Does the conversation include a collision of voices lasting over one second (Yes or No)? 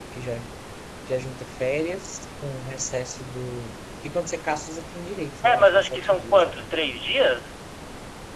Yes